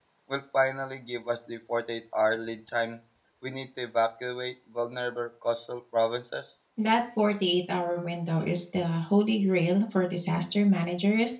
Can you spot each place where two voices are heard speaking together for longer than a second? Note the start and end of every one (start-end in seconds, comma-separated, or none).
none